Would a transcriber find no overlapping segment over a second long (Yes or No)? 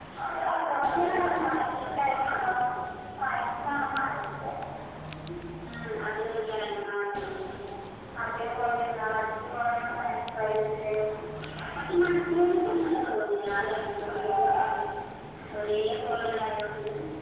No